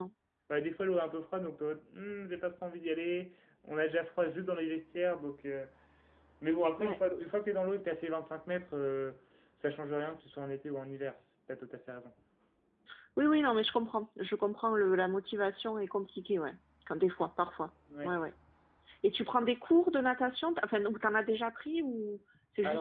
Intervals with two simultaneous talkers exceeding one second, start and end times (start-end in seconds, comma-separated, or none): none